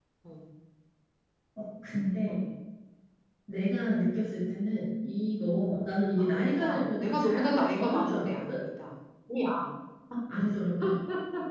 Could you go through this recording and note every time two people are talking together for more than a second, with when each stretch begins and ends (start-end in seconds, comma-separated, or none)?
6.2-8.6